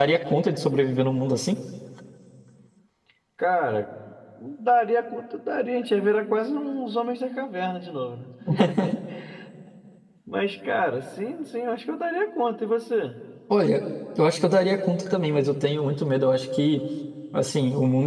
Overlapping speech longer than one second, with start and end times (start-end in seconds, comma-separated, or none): none